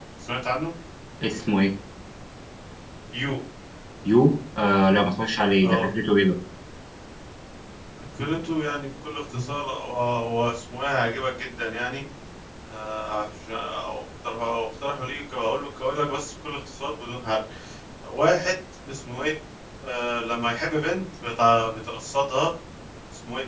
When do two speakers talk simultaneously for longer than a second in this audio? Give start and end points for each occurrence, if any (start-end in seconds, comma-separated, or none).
none